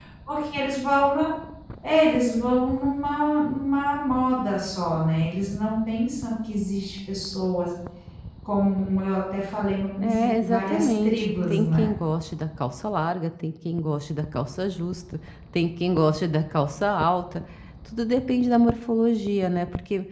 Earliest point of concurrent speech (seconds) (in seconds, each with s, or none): 10.0 s